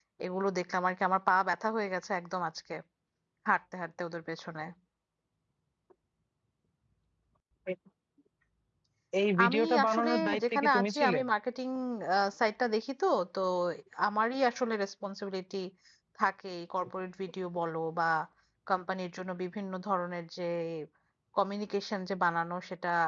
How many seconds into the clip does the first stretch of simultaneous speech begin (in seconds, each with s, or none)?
9.4 s